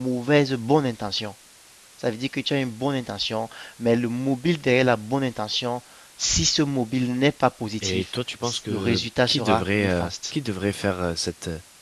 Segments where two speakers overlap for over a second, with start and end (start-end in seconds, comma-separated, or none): 8.7-10.1